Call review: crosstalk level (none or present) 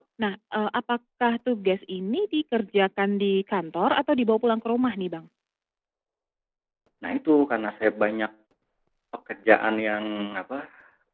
none